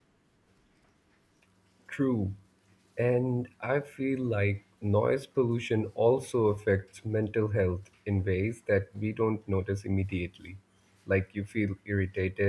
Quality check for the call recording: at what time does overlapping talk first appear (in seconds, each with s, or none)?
none